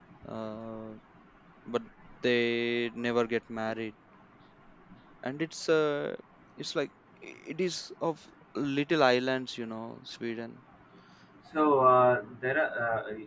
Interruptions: none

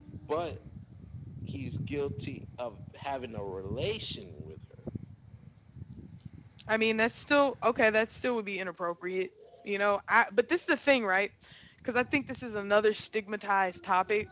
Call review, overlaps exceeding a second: none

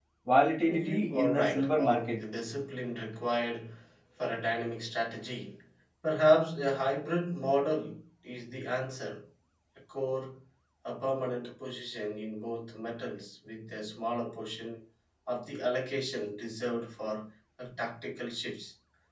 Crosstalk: present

